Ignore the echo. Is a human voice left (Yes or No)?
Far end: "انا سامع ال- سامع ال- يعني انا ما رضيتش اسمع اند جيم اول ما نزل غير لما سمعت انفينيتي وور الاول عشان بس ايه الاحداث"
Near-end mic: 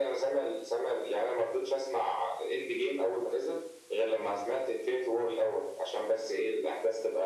No